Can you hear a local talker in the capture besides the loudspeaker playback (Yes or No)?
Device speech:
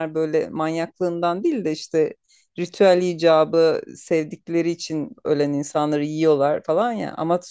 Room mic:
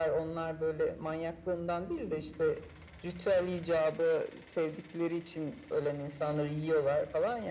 No